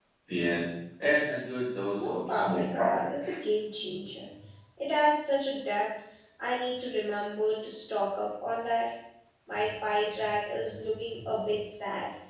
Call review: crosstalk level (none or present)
present